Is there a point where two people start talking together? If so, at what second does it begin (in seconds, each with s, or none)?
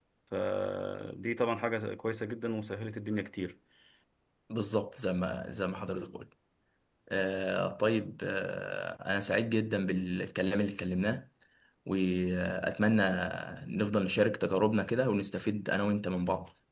none